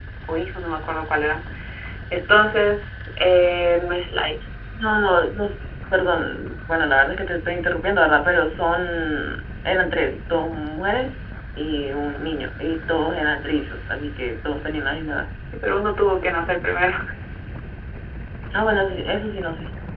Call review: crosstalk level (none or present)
none